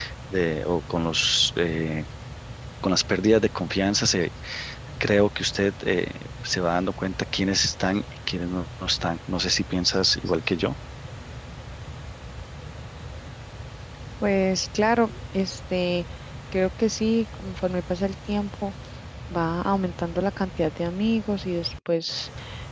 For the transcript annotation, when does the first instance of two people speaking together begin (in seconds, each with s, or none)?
none